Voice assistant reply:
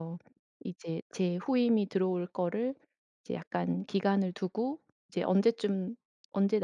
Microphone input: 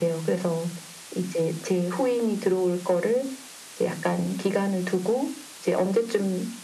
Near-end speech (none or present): none